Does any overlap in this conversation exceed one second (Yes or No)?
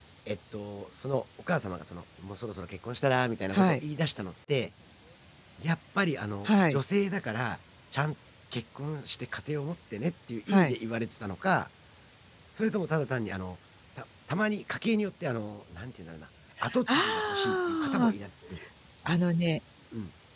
Yes